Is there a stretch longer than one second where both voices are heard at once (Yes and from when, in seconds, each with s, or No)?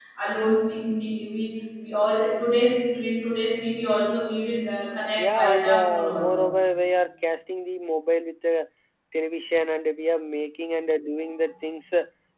Yes, from 5.2 s